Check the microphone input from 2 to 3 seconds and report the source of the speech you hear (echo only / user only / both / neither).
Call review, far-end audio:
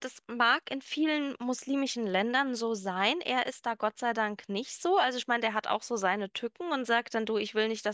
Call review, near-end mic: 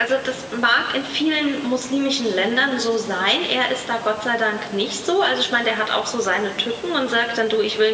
echo only